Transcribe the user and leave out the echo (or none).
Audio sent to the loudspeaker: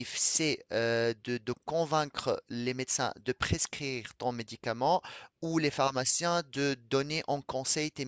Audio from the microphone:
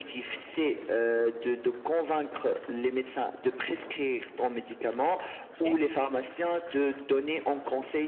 Ok.